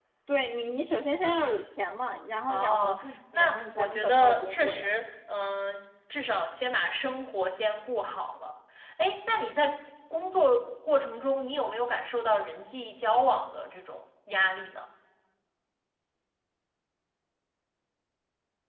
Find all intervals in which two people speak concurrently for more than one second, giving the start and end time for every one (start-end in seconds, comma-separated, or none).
2.5-4.9